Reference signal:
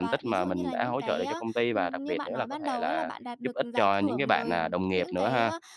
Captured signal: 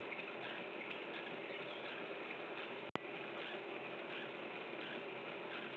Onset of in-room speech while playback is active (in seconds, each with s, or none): none